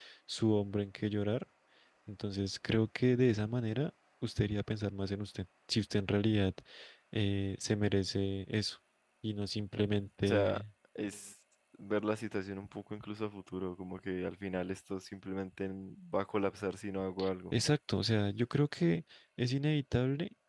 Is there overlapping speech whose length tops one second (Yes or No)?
No